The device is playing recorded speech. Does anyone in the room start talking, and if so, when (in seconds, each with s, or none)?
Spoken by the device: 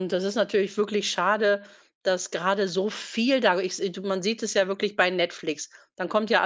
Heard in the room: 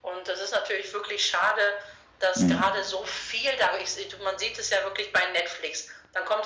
2.3 s